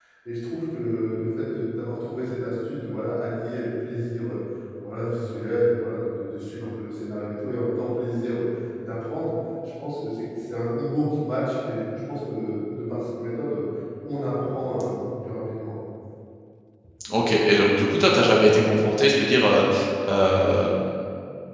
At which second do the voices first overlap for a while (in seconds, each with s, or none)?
none